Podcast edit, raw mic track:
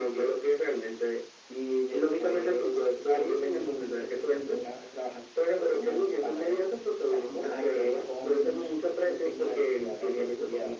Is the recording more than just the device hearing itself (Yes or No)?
No